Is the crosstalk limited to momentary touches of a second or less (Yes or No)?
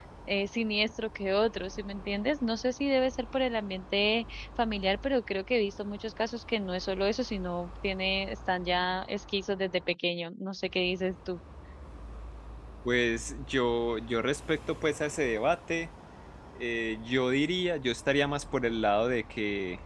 Yes